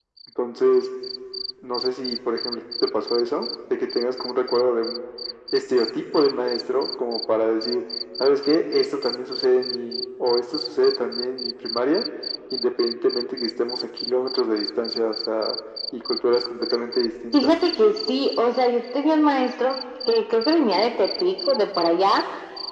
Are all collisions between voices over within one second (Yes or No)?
Yes